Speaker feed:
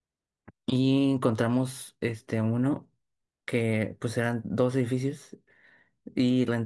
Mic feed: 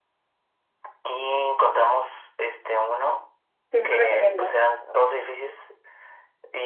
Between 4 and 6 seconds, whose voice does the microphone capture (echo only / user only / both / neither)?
both